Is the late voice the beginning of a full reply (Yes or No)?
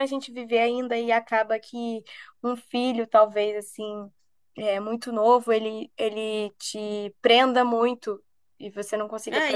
Yes